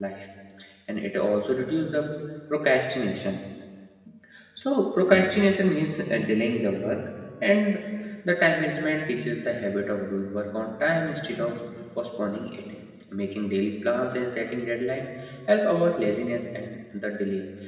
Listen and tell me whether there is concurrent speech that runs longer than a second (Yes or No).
No